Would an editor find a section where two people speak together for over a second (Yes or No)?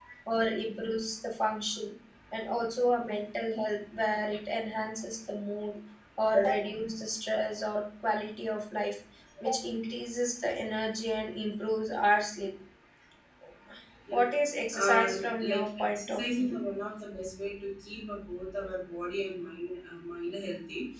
Yes